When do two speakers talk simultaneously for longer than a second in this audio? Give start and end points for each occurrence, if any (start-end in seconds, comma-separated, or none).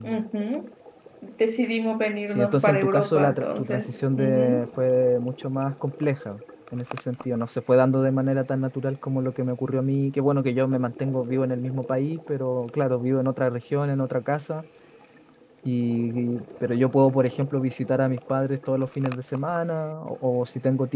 2.3-4.7